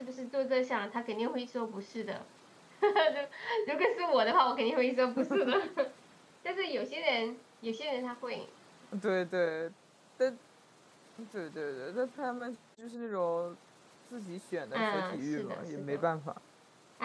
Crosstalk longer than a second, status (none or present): present